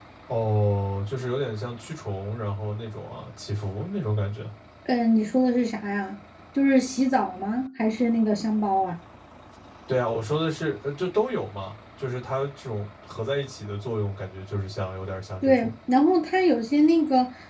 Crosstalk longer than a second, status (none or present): none